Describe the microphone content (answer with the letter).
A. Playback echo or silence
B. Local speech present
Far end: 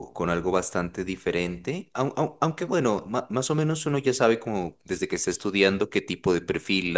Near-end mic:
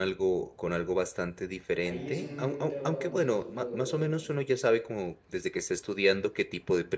B